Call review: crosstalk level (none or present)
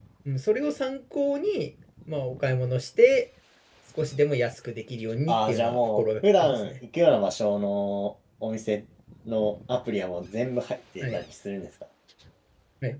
present